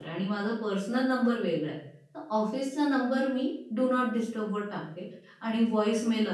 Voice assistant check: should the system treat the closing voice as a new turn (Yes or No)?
No